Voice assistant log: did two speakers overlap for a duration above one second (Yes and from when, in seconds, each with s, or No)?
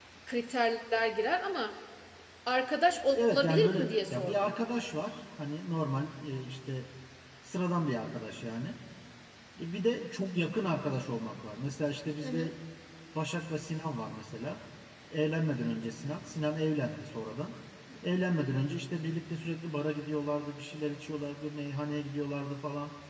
Yes, from 3.1 s